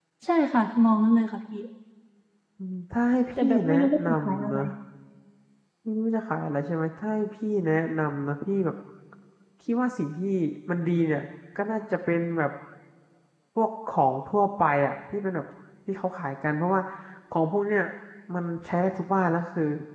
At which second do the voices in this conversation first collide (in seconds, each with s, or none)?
3.4 s